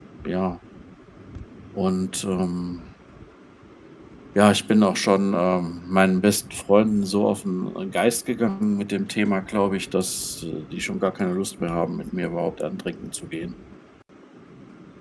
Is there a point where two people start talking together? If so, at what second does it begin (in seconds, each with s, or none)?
none